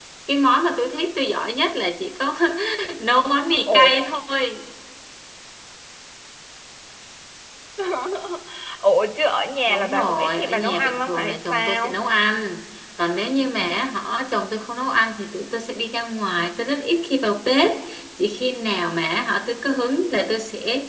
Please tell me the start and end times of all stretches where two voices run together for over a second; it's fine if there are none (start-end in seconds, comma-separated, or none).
9.7-11.9